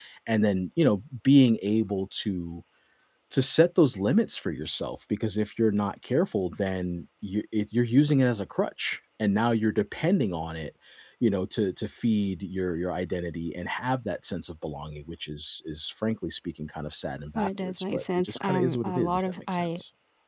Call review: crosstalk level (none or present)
present